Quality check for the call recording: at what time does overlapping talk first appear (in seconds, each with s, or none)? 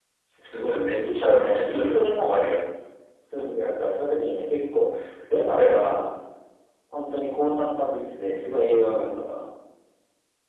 1.0 s